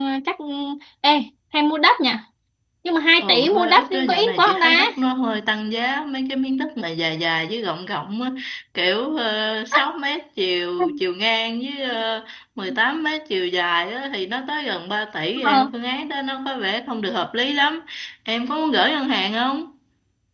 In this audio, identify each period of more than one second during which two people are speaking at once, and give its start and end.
3.2-4.7

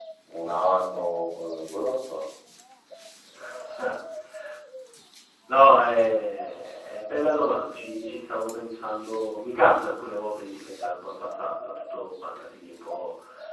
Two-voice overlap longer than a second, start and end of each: none

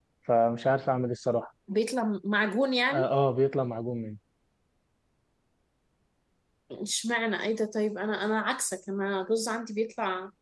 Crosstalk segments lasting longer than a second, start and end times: none

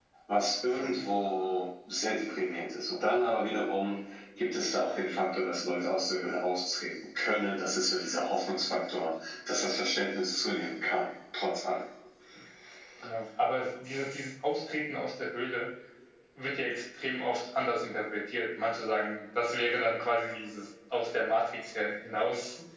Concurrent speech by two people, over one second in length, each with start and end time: none

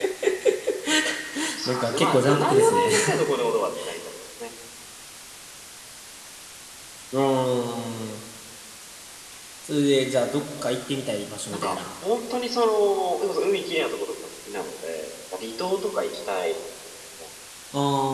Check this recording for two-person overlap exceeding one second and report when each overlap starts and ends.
1.6-2.9

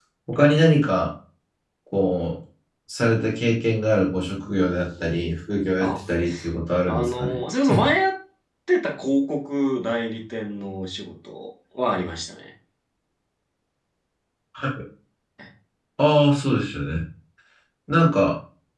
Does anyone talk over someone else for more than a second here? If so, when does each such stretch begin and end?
none

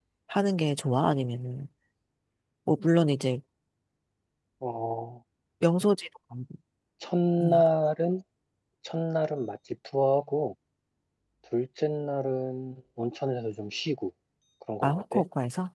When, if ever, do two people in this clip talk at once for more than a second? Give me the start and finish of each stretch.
none

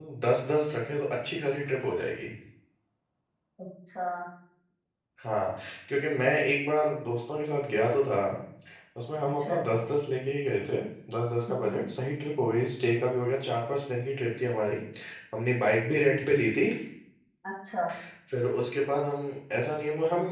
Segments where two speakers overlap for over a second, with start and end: none

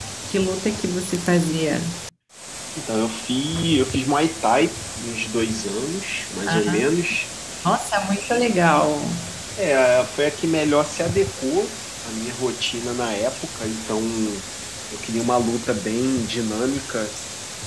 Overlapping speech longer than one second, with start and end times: none

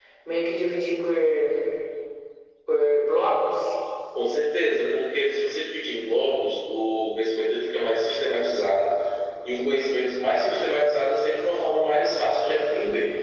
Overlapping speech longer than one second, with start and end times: none

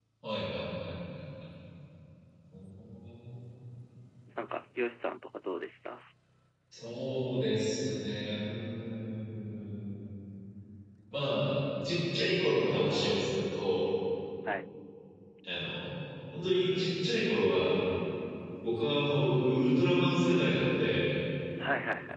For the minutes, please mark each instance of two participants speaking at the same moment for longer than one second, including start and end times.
none

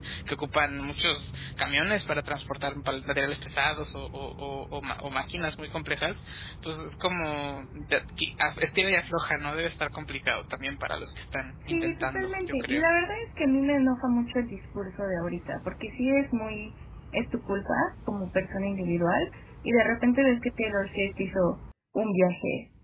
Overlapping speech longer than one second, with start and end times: 11.7-12.9

